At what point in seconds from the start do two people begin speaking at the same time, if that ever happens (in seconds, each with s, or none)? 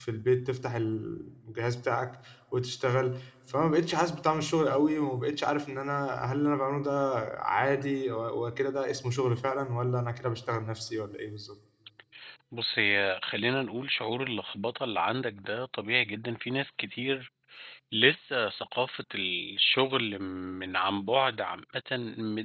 none